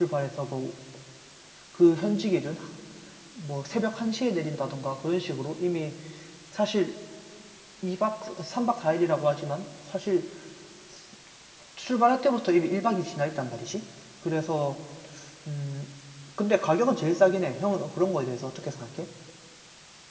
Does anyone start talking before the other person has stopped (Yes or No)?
No